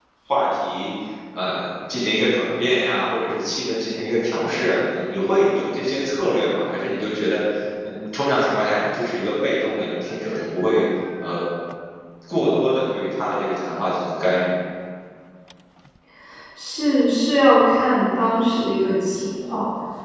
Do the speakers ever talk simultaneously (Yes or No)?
No